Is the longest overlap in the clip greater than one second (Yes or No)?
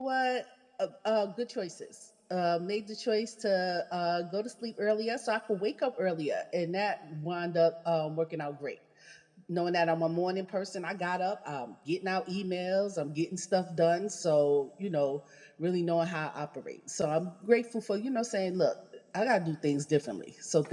No